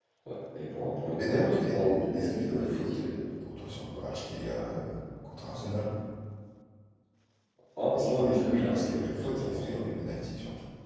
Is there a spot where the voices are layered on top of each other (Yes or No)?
Yes